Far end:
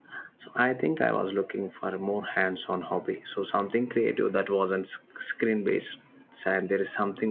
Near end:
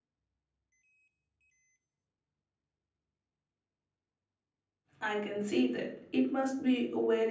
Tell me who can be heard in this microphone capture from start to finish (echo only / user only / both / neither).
user only